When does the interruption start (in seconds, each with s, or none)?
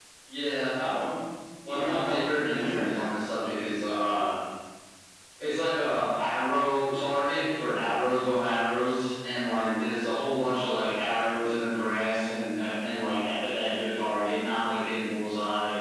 1.6 s